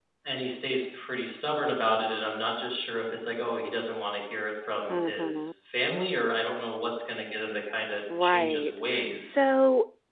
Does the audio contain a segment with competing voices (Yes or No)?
Yes